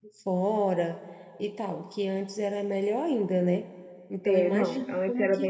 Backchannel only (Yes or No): No